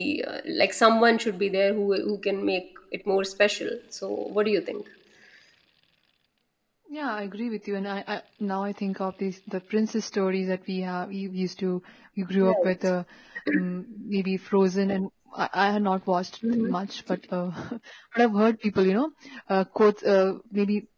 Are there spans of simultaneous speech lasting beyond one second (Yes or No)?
No